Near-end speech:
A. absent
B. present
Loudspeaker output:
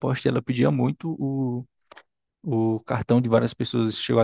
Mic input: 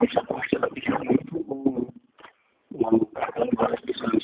A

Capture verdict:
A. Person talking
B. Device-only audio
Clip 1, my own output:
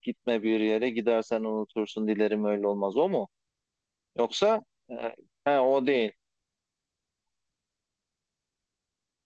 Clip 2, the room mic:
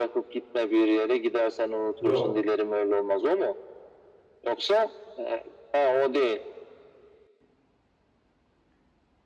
A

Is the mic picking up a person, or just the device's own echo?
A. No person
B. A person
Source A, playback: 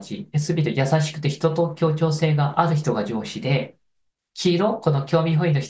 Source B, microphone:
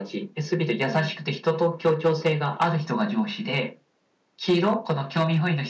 B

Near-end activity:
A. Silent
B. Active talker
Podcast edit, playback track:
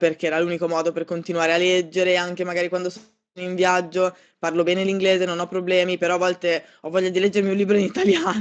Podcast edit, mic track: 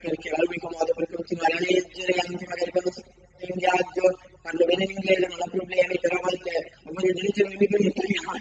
A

